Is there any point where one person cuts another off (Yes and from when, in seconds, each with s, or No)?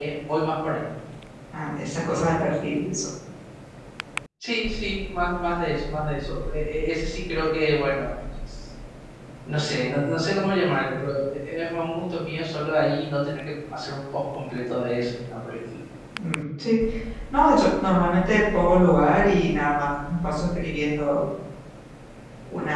No